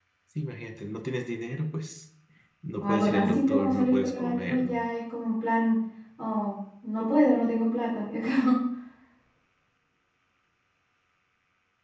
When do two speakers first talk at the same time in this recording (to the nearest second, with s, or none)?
3 s